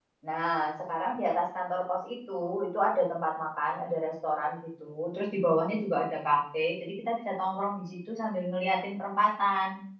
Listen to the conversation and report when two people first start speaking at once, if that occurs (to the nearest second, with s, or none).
none